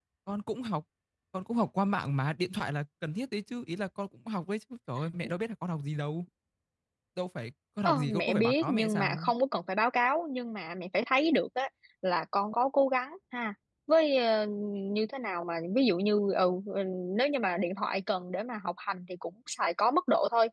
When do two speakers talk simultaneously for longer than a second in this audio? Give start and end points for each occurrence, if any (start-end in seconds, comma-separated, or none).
7.8-9.3